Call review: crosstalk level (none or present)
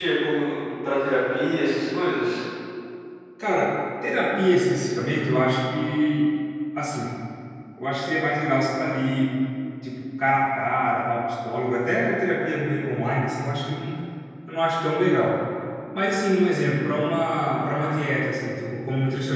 none